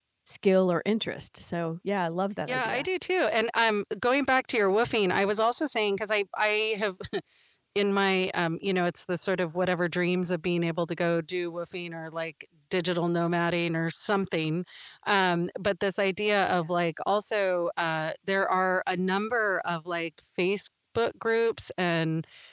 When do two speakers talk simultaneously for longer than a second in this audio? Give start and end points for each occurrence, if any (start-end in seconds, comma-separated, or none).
none